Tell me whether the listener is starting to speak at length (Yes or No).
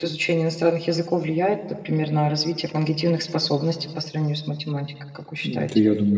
Yes